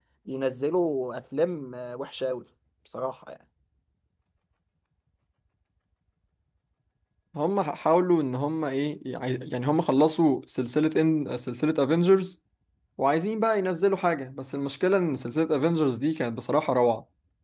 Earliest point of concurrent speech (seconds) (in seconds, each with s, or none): none